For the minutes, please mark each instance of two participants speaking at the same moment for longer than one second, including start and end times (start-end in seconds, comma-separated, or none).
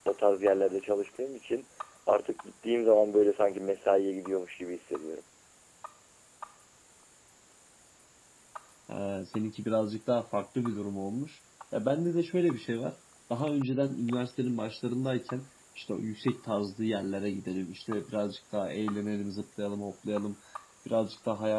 none